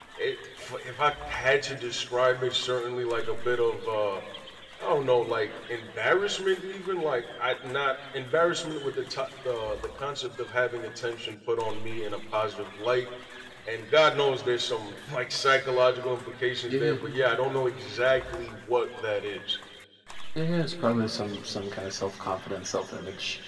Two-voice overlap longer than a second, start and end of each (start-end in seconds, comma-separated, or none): none